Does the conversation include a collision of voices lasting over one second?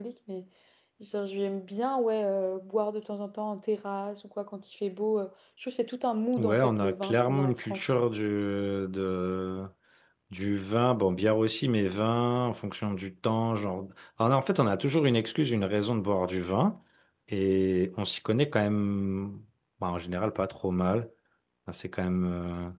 Yes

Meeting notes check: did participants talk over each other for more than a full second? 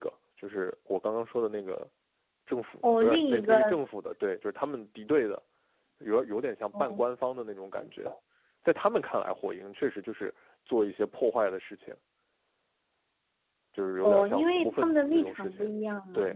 Yes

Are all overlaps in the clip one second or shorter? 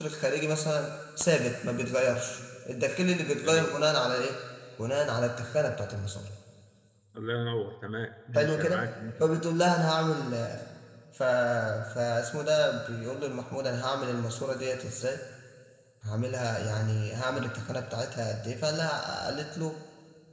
Yes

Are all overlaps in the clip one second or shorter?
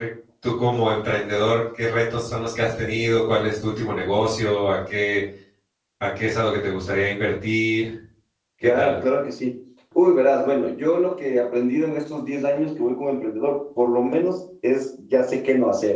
Yes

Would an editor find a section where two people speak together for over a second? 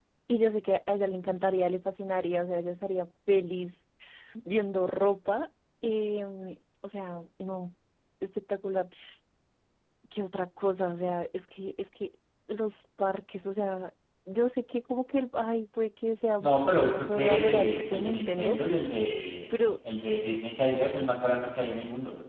Yes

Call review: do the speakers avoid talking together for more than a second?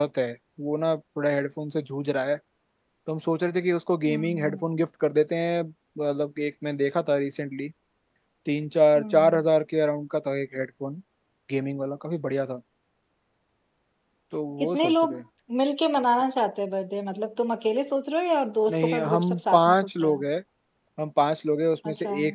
No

